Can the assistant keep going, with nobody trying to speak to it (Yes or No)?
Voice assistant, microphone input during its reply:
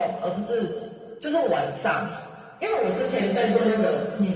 Yes